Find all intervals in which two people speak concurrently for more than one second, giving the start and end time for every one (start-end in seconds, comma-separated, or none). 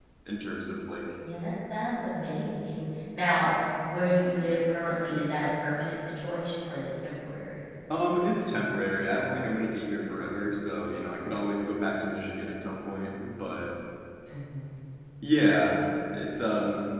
none